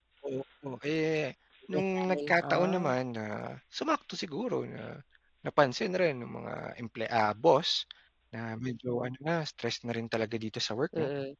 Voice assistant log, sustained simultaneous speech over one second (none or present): present